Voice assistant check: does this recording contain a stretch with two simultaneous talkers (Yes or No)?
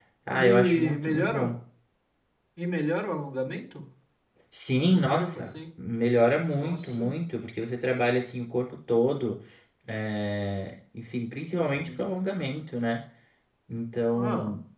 Yes